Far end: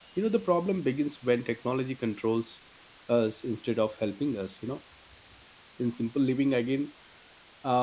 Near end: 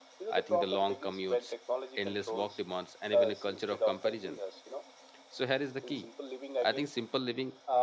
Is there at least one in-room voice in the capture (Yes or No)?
Yes